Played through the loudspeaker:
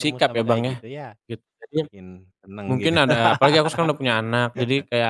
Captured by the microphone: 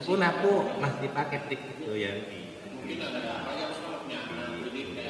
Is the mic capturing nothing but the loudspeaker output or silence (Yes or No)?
No